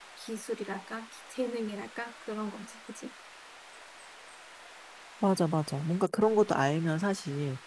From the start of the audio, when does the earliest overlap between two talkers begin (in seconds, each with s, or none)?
none